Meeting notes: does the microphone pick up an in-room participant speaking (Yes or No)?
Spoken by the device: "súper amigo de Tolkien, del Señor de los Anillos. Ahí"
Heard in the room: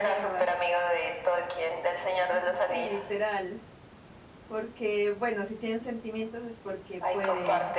Yes